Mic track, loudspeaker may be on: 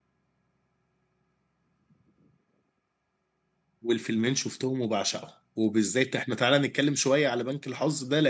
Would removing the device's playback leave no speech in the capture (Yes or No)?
No